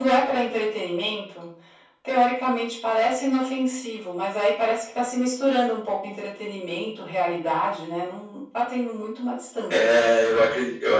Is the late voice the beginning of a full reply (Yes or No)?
Yes